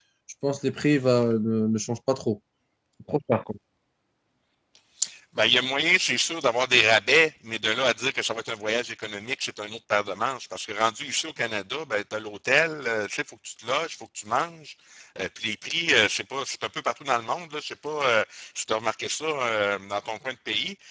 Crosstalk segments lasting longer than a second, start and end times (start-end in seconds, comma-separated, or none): none